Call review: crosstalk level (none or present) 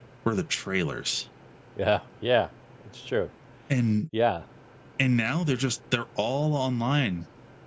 none